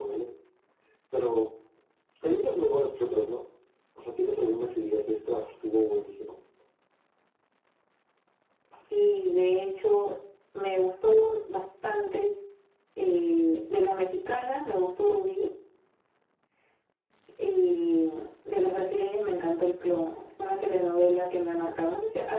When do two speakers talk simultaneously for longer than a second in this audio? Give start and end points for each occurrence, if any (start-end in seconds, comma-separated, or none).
none